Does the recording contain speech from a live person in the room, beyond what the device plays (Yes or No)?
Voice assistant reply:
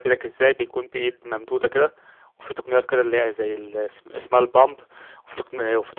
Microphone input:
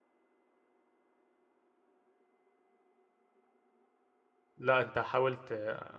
Yes